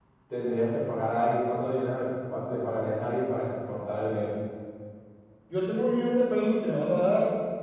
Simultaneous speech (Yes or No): No